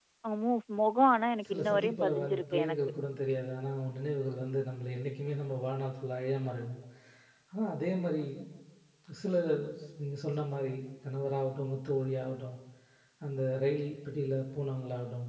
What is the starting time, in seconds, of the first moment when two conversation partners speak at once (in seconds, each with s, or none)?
1.4 s